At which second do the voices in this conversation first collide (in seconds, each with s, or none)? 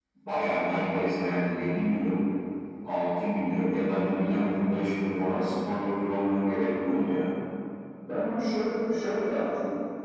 none